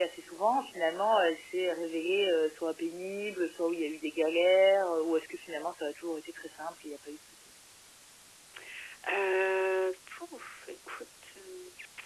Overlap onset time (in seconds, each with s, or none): none